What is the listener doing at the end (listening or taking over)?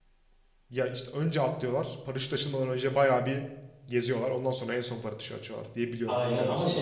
taking over